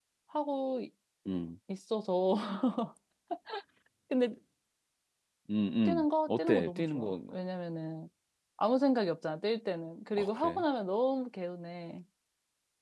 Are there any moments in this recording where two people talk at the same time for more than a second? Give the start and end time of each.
5.8-7.1

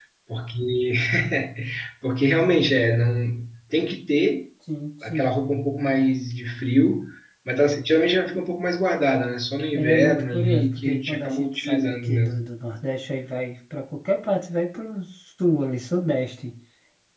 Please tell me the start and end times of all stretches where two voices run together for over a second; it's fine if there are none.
9.8-12.4

